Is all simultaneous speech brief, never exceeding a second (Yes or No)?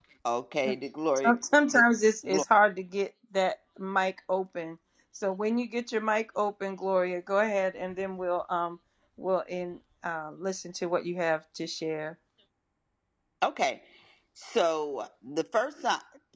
Yes